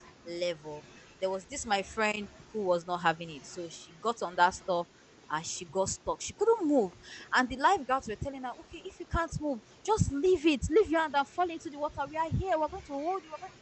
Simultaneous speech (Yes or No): No